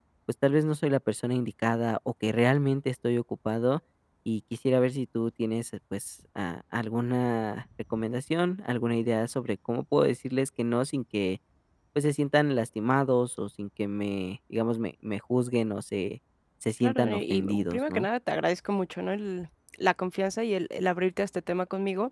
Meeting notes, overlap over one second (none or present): present